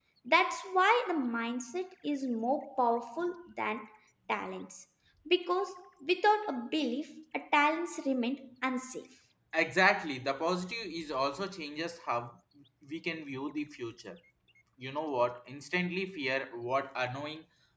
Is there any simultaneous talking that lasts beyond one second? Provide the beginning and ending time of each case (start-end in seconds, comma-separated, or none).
none